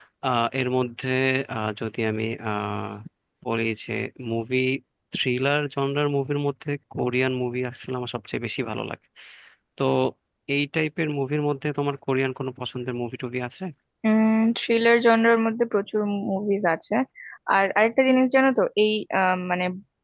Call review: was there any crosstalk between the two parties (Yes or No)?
No